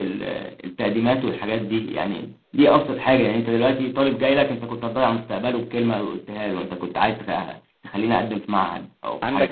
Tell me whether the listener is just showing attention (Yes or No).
No